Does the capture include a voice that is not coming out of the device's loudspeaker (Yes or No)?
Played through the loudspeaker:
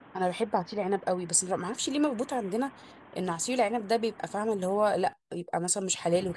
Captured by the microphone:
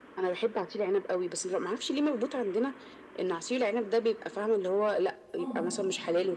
Yes